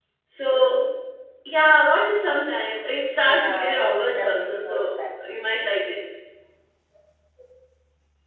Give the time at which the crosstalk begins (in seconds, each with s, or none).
3.2 s